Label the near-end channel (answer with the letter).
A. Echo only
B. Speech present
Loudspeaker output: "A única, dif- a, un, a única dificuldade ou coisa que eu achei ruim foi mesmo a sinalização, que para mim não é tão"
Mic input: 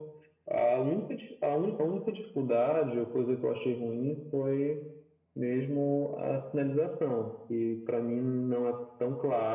A